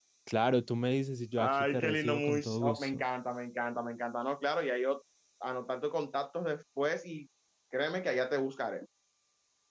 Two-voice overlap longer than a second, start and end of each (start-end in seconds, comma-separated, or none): 1.4-3.0